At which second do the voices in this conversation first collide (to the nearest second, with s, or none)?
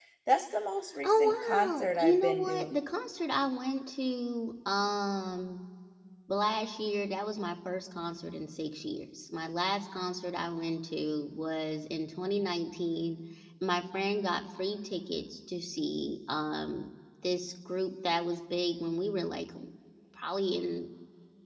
1 s